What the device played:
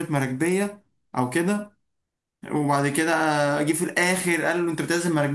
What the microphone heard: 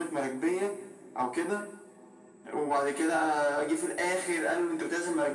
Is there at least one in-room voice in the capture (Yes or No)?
No